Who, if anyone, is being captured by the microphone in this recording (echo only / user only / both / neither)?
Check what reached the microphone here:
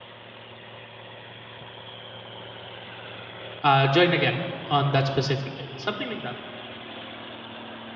user only